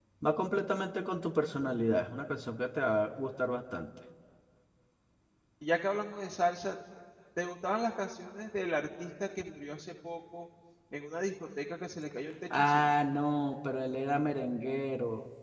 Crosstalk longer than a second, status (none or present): none